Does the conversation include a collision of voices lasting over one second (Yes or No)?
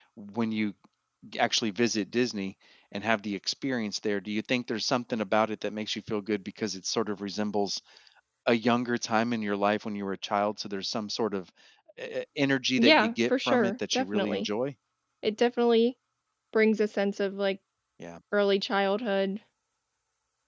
Yes